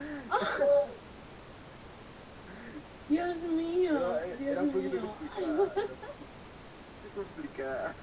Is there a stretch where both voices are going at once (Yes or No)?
Yes